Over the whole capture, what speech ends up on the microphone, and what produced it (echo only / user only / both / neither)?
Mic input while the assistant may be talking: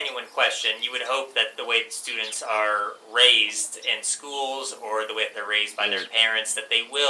both